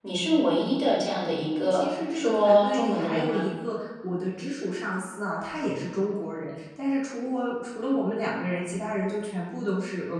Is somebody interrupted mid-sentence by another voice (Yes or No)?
Yes